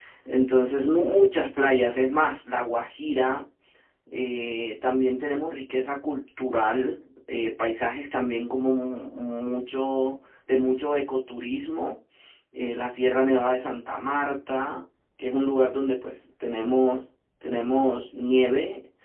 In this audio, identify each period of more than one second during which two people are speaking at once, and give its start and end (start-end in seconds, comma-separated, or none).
none